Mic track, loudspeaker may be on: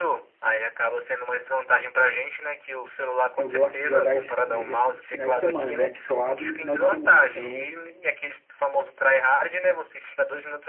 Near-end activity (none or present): present